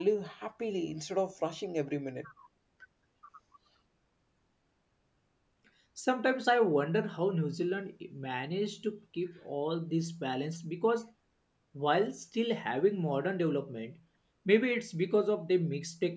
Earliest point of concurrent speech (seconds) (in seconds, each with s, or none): none